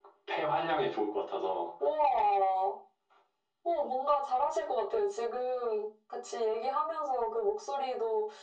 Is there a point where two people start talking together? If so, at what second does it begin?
none

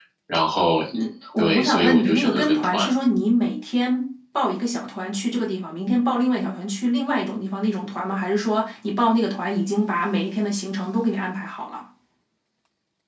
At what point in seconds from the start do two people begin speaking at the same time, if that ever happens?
1.4 s

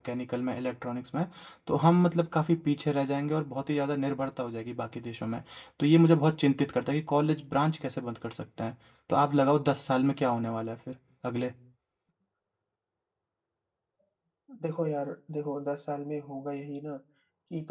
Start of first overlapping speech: none

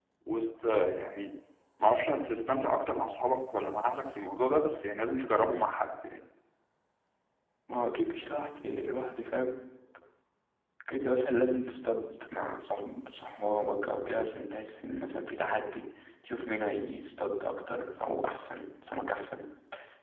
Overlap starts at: none

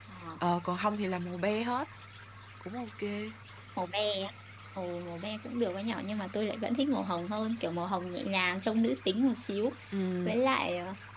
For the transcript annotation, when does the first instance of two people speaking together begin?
none

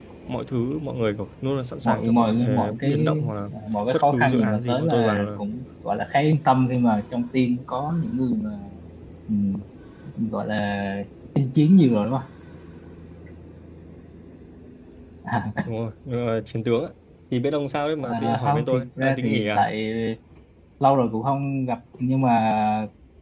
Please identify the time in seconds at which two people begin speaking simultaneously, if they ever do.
1.8 s

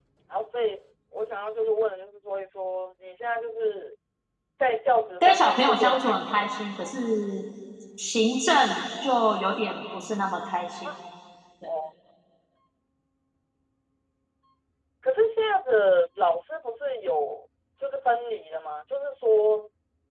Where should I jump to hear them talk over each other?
5.2 s

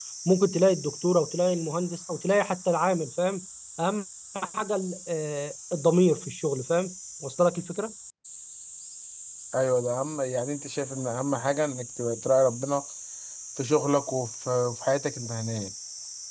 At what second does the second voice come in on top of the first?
none

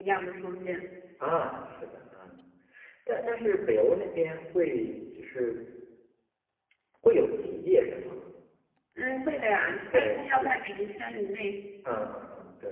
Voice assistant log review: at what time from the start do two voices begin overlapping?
9.5 s

